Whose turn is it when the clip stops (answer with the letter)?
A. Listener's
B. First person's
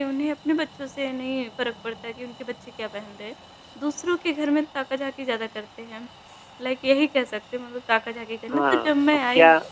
A